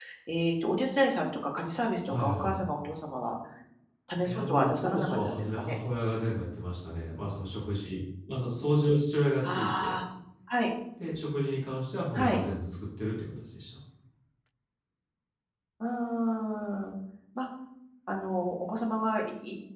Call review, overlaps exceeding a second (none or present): present